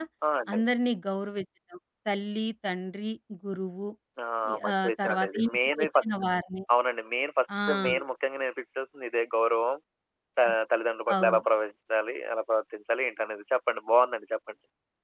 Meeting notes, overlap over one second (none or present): present